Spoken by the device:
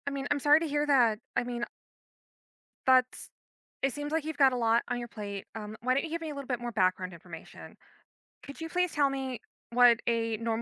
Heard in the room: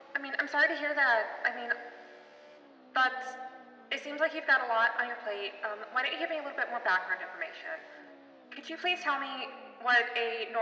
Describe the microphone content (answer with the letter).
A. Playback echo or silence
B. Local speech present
A